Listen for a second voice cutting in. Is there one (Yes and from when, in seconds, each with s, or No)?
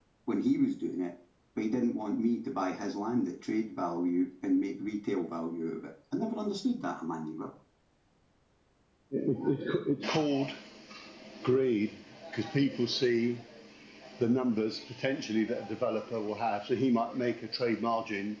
No